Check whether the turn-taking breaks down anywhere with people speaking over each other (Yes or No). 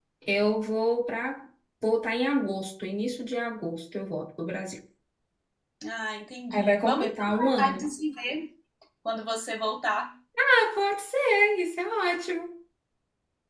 Yes